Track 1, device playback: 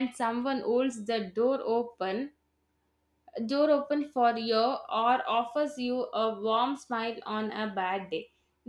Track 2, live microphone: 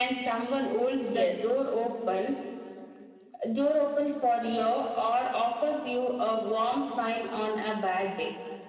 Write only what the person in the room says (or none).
Yes.